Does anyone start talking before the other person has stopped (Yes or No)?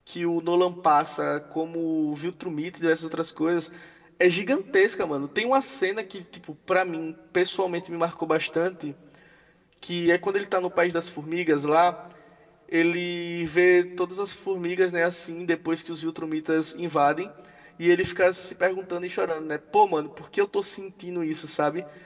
No